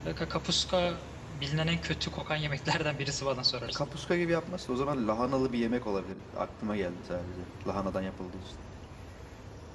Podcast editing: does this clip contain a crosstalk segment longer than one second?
No

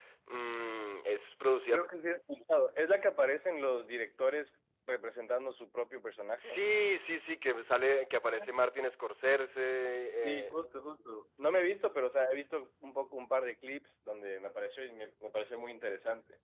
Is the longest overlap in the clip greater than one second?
No

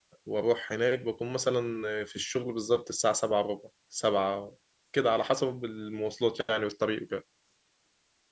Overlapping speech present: No

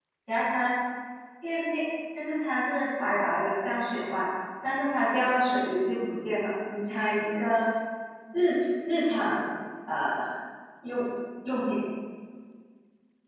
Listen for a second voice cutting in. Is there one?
No

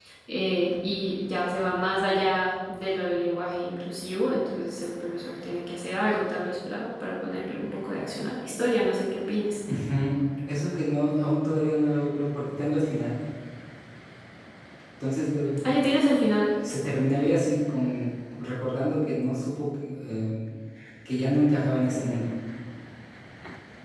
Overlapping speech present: No

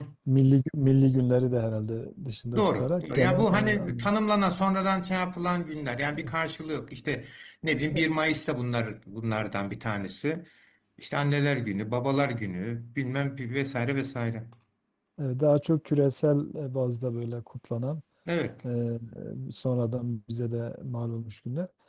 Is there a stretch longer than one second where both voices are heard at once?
Yes, from 2.5 s

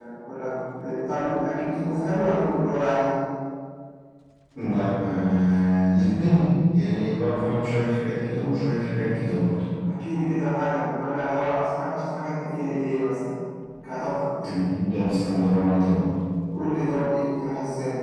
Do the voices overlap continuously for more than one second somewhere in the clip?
No

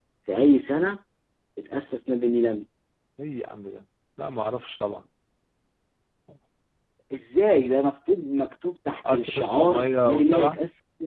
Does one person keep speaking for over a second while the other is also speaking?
Yes, from 9.0 s

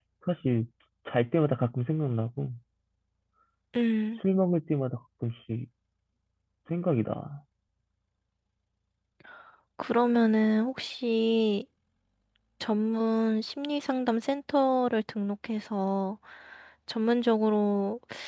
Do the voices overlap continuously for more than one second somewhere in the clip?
No

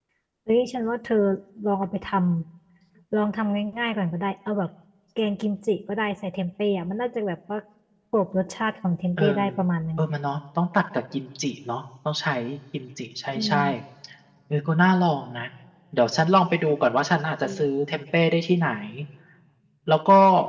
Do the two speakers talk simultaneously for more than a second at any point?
No

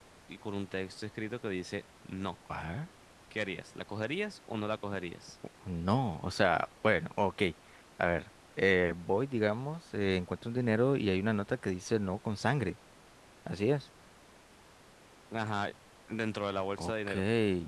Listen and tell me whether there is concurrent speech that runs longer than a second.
No

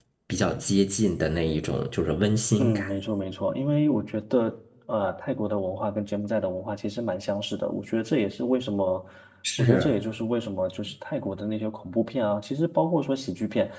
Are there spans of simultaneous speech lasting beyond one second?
No

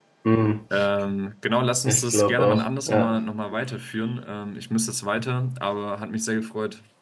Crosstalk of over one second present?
Yes, from 1.9 s

